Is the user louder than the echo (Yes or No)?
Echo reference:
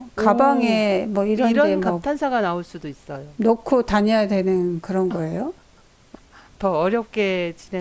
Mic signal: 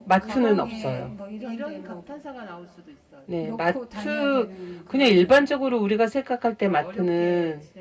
Yes